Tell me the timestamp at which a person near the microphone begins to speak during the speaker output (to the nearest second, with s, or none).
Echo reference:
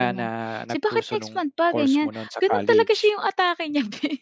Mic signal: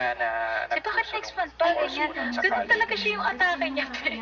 2 s